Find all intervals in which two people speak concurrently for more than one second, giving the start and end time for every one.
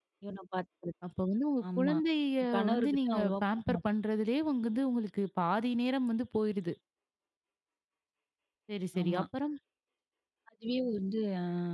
2.6-3.8

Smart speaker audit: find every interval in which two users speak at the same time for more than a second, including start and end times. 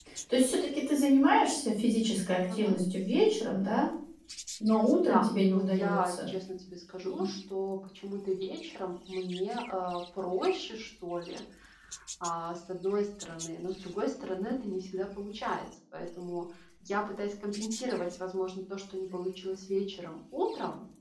5.0-6.3

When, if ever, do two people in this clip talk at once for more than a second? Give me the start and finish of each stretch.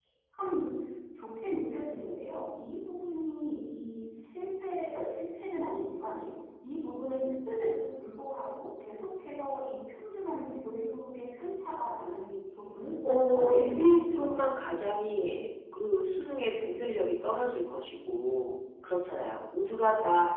13.2-14.7

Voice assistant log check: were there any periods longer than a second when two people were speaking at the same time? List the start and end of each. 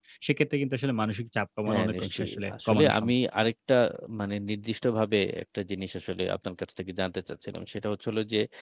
1.7-3.1

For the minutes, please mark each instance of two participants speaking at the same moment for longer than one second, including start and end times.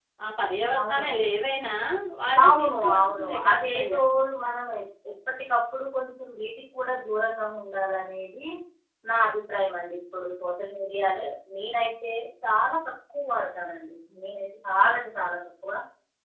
2.4-4.0

